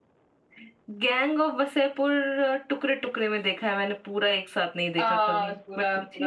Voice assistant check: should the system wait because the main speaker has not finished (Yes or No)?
No